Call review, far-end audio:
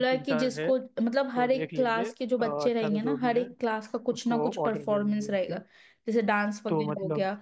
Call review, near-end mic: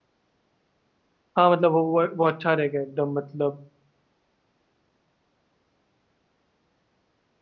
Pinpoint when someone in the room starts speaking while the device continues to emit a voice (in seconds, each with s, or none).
1.4 s